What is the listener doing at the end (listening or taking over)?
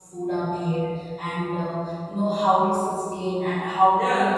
taking over